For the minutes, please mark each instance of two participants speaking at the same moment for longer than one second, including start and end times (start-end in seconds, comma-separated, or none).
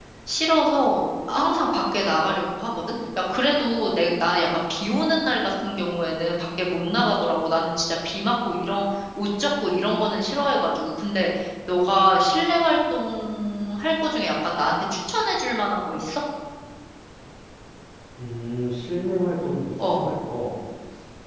none